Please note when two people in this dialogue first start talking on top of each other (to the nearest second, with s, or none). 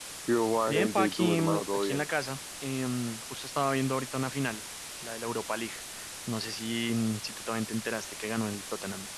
1 s